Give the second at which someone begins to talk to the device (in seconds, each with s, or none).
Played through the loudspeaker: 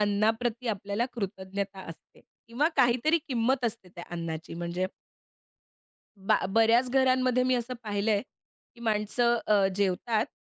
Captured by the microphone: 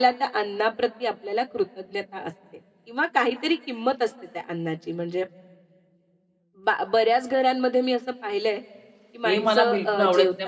9.2 s